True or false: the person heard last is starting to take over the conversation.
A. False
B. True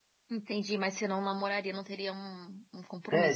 B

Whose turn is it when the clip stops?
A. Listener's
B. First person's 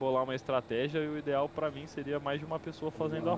A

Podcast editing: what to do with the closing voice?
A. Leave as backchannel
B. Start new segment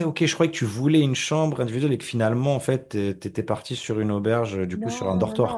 B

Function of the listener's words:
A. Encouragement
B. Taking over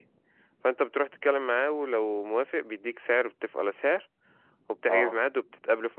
A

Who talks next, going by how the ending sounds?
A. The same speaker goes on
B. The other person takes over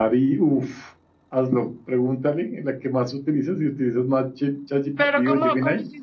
B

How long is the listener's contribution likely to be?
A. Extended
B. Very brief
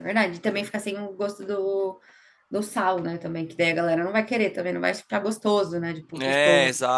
A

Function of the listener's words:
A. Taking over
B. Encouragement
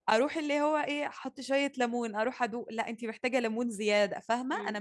A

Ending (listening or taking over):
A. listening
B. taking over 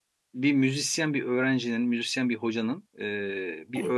A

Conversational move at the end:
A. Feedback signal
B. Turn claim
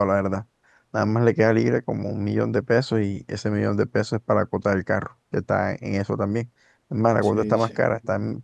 A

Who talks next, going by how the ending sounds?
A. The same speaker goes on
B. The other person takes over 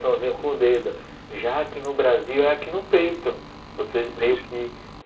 A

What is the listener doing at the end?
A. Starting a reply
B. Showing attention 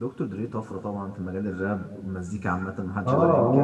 A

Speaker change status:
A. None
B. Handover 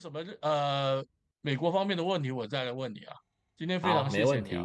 B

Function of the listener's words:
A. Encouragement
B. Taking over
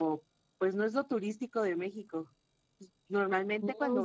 A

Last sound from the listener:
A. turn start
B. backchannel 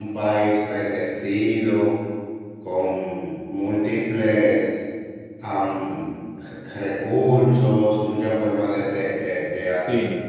B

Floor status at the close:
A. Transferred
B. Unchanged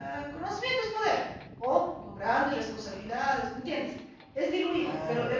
B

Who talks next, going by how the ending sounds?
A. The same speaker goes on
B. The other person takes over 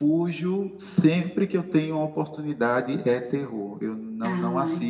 A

